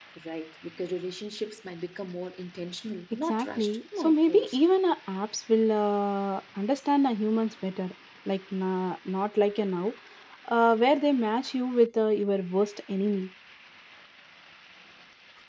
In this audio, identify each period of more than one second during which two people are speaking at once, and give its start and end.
3.3-4.6

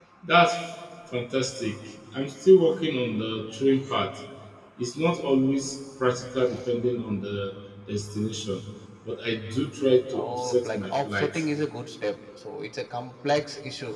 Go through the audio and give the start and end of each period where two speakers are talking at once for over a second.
10.2-11.4

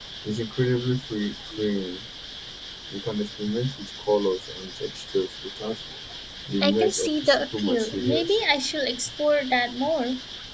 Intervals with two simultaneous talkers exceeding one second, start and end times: 6.6-8.4

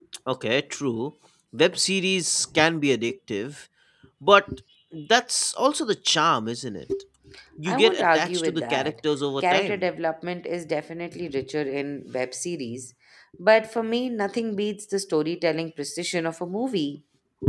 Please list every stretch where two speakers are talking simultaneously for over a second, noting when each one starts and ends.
7.7-8.9

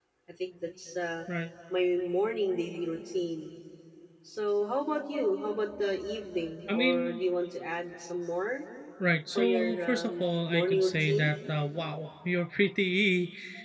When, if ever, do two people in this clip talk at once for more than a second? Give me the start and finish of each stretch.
9.4-11.3

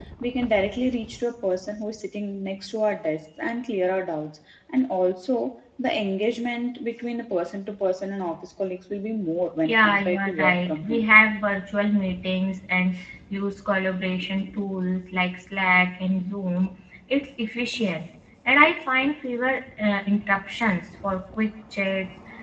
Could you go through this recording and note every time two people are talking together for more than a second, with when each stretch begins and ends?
9.6-11.1

